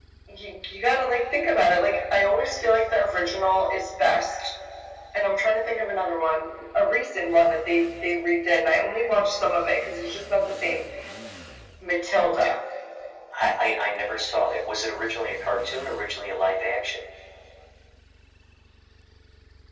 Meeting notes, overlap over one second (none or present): none